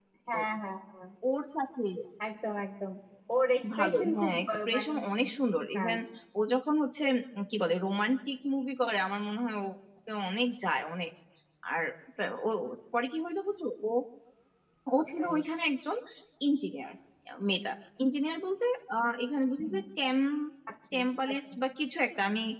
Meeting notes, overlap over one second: present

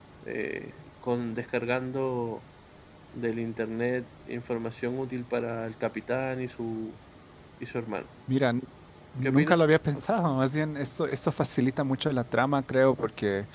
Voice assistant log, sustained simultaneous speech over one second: none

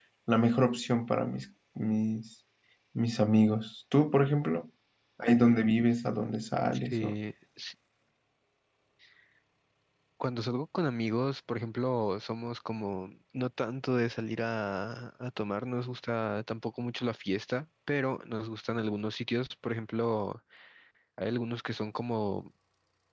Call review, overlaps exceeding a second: none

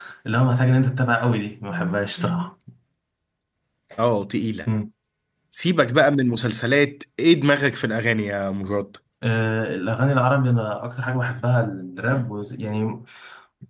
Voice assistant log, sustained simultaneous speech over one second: none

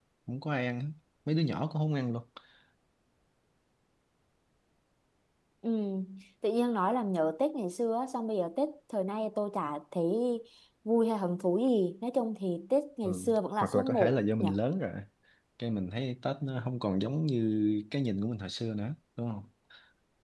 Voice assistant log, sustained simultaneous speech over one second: present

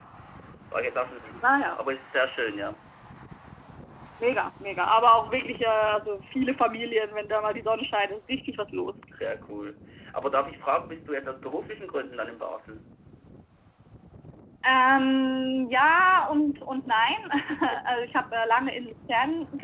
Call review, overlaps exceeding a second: none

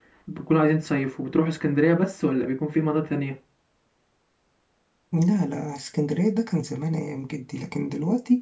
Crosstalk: none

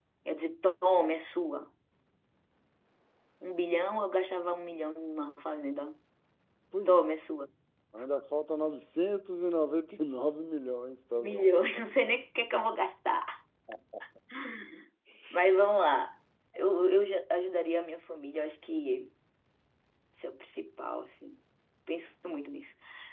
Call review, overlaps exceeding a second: none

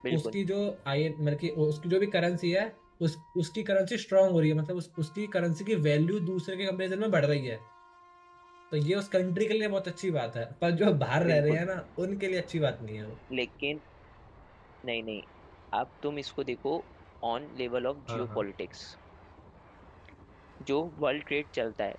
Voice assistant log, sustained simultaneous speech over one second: none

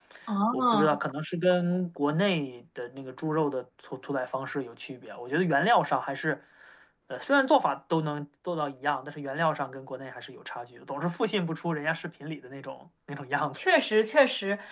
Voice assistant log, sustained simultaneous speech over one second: none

